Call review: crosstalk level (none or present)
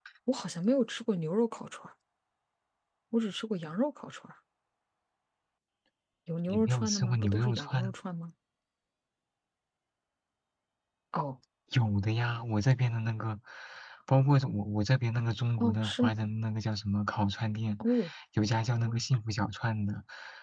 present